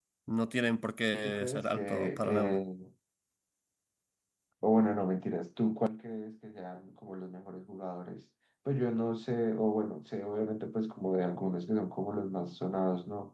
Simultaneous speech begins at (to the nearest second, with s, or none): 1 s